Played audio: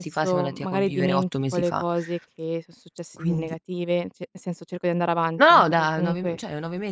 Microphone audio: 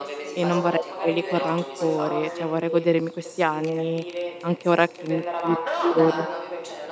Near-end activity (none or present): present